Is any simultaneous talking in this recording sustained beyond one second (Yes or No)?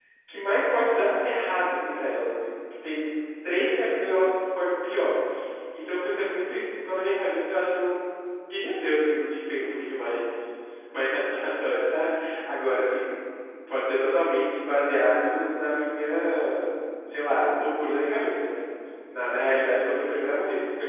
No